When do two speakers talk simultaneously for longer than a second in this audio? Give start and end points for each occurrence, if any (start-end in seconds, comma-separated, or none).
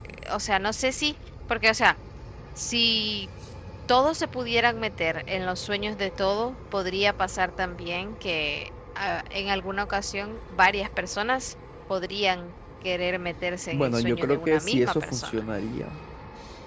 13.7-15.4